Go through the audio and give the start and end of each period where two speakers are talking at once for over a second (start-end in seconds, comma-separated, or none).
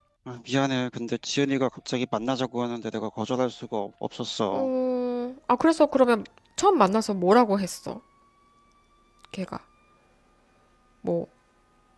none